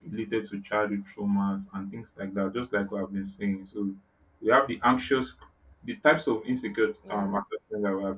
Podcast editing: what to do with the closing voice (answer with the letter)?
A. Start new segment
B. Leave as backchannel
B